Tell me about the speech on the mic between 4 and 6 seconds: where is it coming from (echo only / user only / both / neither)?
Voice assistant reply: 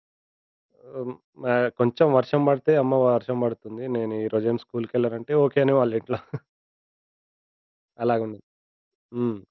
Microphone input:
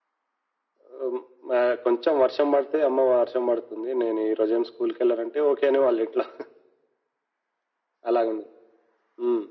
echo only